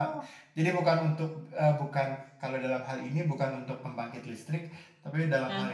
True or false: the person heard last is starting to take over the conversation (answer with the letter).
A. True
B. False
B